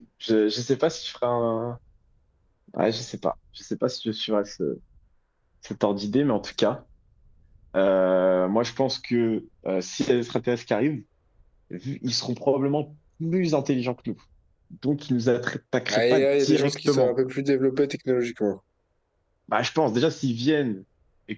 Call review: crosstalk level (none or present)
present